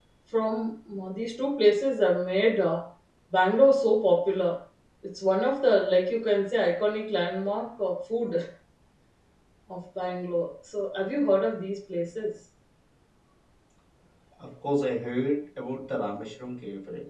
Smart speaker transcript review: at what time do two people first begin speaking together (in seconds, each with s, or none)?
none